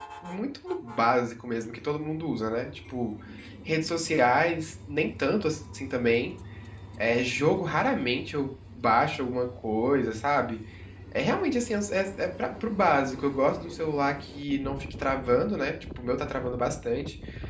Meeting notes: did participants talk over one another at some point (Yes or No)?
No